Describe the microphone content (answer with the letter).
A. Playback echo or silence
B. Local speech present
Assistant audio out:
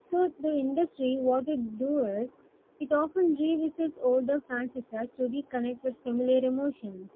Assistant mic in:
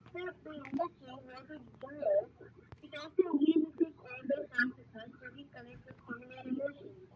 A